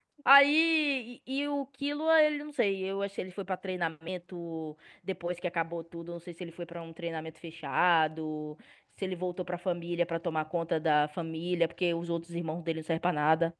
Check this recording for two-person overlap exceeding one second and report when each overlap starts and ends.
none

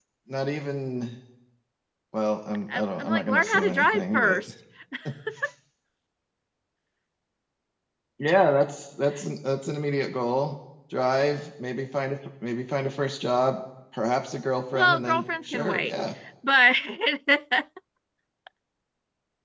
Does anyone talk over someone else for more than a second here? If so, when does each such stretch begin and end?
2.7-4.4, 14.7-15.9

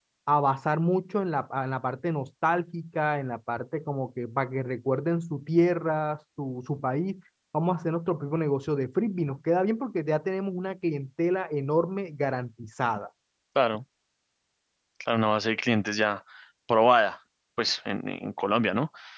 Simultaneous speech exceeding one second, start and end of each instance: none

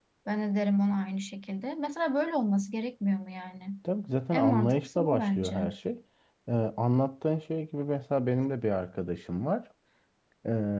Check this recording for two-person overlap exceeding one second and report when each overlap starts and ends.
4.3-5.6

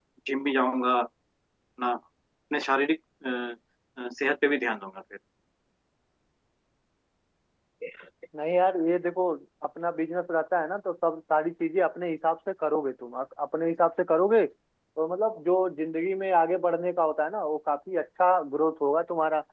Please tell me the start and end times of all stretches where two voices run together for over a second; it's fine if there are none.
none

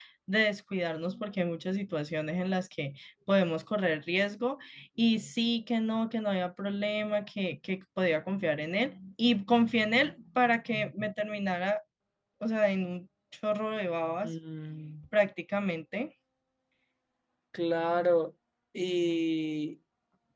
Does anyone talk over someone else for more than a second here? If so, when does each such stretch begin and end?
none

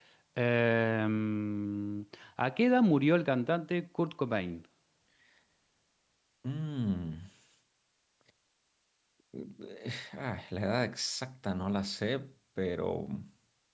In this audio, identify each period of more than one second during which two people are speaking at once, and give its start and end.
none

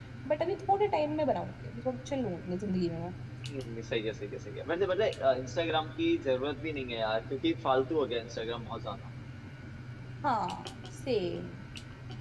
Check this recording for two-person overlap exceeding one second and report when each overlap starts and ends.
none

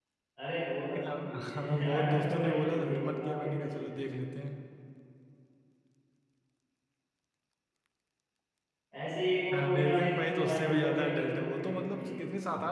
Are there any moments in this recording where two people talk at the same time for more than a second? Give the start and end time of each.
1.1-4.0, 9.5-12.2

